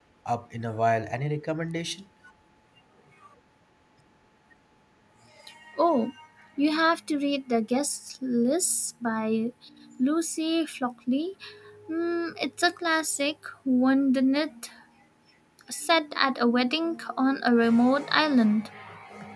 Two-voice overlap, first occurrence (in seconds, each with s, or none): none